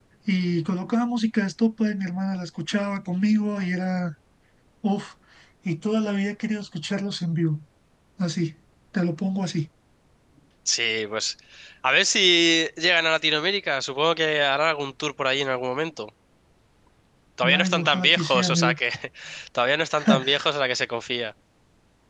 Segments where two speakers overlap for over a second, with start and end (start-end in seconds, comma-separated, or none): 17.5-18.7